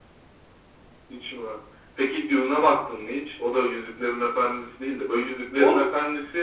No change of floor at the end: Yes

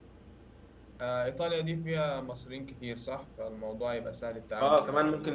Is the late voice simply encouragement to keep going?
No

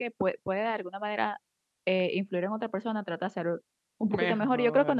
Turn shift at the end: No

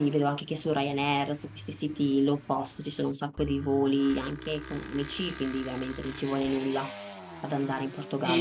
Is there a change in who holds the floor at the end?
Yes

